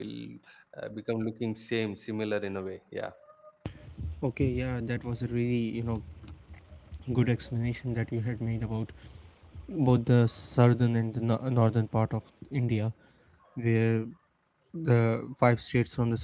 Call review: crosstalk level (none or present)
none